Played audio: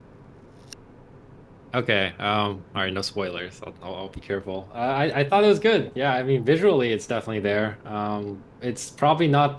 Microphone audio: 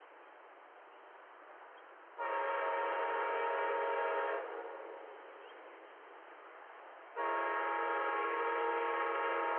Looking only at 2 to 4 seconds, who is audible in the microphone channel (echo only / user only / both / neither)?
neither